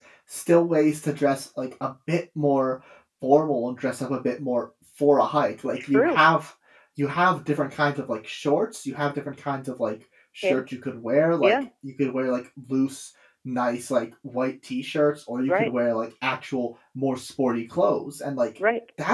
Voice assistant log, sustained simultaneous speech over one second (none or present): none